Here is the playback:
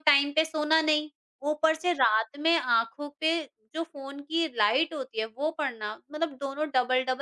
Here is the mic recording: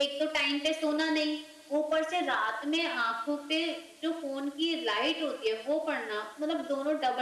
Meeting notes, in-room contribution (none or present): none